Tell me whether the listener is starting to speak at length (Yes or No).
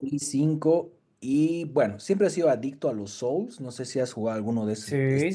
Yes